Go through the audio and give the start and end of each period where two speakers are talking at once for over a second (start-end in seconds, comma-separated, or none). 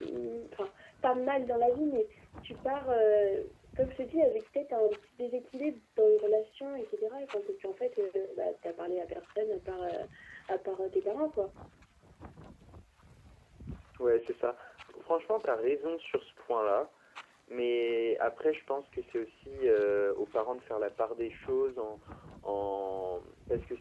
none